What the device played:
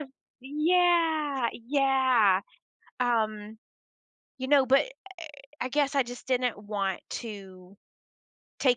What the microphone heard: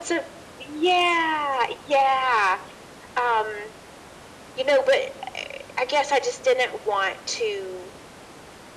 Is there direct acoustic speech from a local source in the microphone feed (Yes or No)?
No